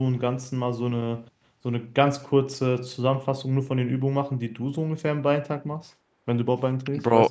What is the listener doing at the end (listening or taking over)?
taking over